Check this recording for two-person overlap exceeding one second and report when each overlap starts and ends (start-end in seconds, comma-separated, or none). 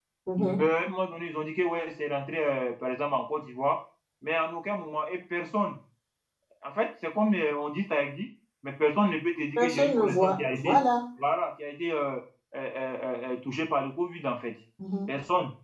9.6-10.8